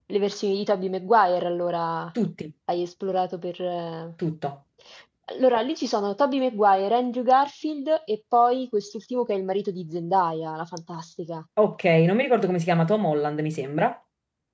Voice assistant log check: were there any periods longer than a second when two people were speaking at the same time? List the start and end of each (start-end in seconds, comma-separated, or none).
none